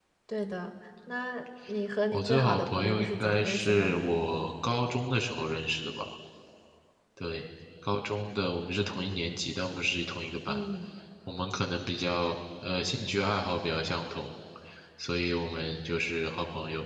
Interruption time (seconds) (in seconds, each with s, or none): 2.1 s